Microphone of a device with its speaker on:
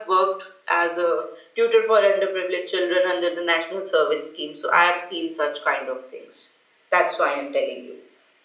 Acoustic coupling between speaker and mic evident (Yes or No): Yes